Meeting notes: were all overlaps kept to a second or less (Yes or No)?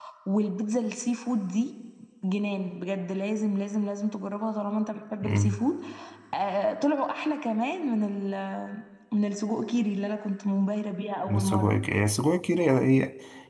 Yes